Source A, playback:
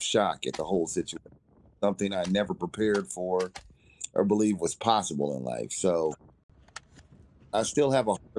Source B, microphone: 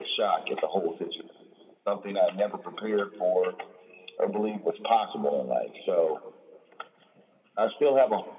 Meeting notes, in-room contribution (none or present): none